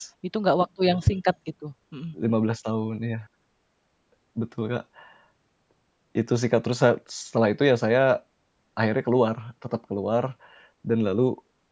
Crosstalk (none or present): none